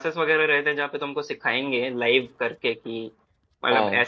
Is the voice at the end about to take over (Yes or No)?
No